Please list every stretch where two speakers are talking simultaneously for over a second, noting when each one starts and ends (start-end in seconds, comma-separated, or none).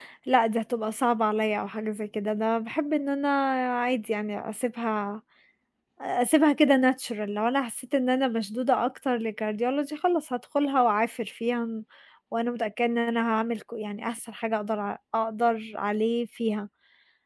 none